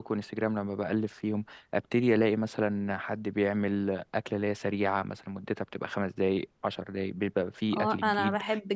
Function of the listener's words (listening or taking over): taking over